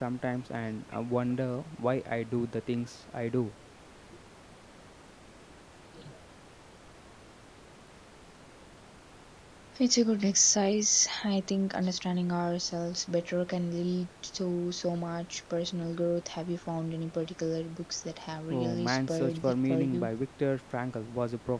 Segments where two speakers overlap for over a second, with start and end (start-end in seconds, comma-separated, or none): 18.5-20.1